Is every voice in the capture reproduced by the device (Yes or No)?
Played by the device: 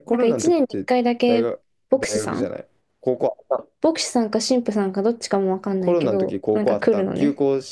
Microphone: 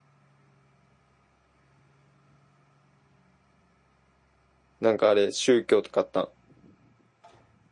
No